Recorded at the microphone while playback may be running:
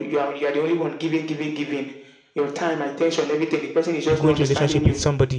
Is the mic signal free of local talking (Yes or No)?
No